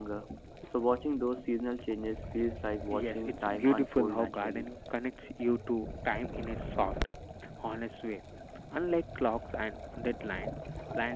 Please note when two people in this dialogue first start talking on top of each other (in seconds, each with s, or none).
2.9 s